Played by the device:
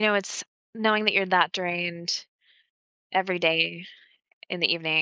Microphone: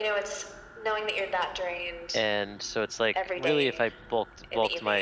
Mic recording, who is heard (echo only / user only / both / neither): both